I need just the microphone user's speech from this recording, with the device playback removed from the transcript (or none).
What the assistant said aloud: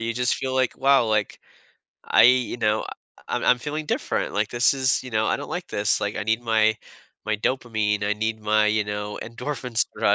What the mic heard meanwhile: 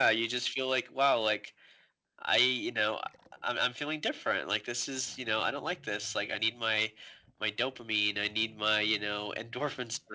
none